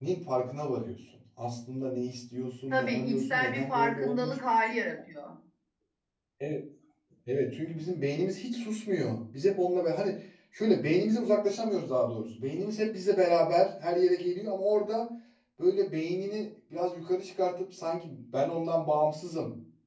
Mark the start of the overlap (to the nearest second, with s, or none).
3 s